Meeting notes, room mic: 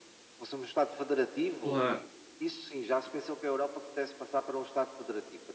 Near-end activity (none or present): present